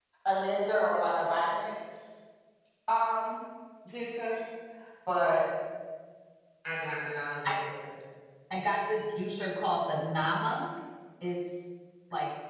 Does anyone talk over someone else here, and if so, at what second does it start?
none

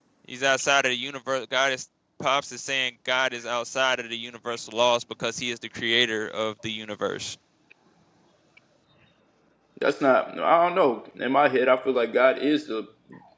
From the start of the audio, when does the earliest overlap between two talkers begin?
none

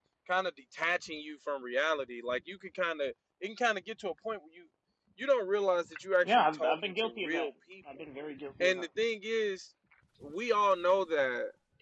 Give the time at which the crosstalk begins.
6.2 s

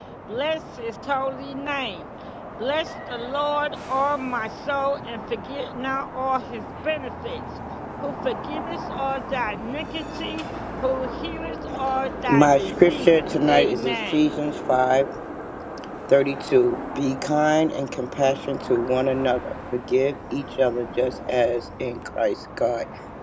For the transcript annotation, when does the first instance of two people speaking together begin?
12.3 s

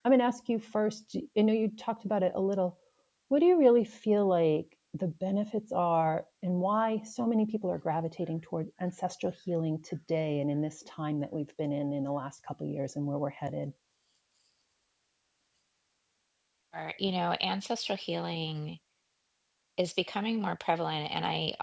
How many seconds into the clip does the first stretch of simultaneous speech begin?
none

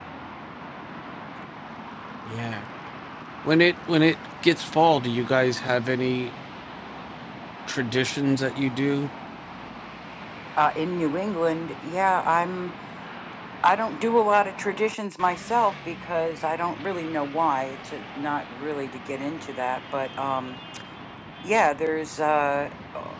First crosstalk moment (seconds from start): none

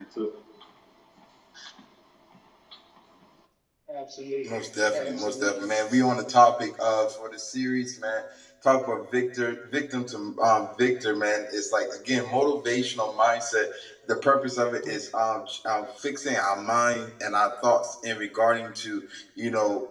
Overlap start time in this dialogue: 4.4 s

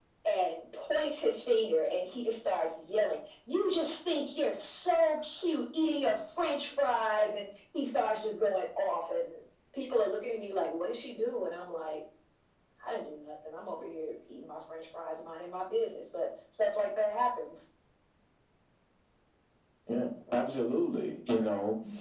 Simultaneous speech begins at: none

